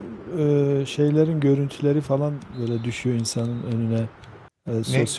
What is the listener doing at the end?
listening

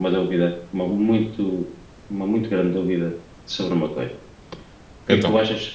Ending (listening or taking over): listening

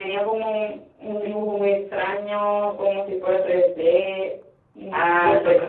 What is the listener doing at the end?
taking over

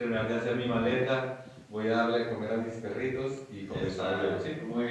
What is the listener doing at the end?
taking over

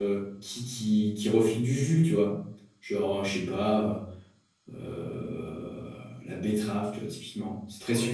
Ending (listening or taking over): taking over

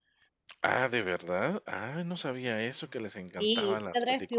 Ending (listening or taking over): taking over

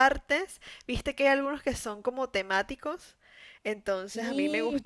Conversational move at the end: listening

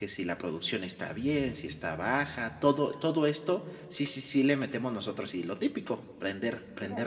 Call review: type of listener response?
taking over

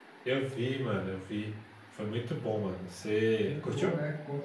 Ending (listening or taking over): taking over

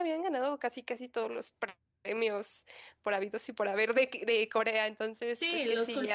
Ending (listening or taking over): taking over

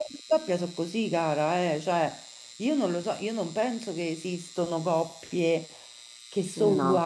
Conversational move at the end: listening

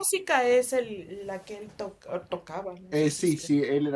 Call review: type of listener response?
taking over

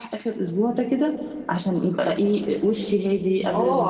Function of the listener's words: taking over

